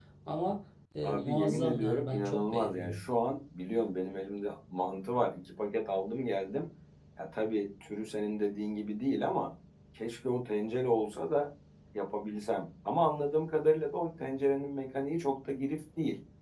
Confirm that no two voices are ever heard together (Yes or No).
No